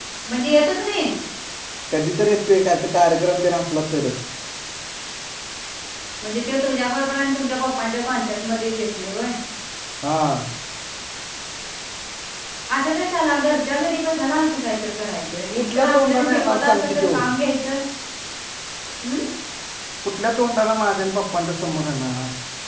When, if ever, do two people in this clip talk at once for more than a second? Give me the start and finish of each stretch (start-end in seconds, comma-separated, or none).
15.6-17.1